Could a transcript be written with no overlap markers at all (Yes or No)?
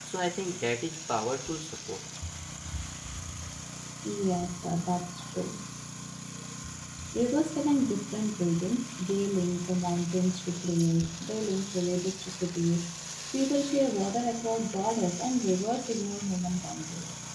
Yes